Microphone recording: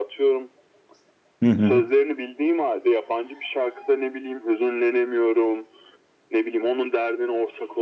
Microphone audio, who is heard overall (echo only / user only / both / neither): both